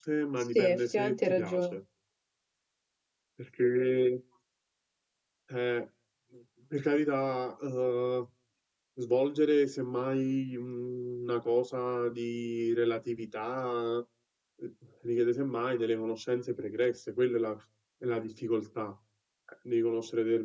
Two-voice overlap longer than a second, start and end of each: 0.6-1.8

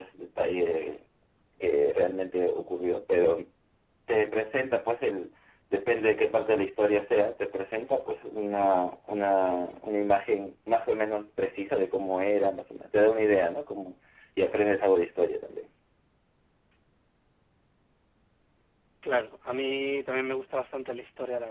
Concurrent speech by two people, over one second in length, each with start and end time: none

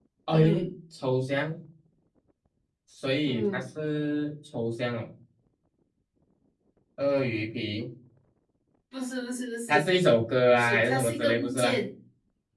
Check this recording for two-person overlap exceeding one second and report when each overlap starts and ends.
10.5-11.8

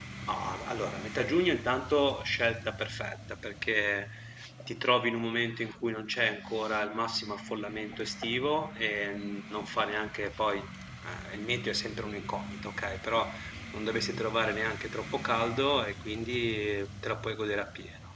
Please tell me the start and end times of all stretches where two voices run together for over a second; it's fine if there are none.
none

